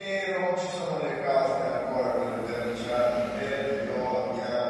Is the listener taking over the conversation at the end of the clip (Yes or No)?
No